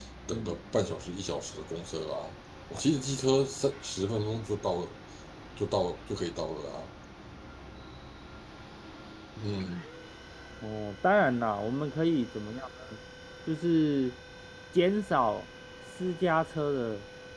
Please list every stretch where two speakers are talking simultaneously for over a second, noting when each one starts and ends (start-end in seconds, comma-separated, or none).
none